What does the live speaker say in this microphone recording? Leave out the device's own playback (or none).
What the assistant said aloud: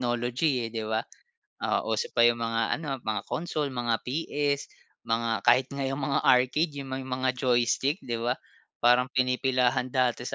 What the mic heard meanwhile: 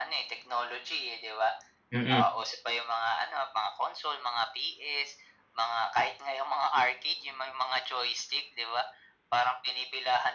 Mm.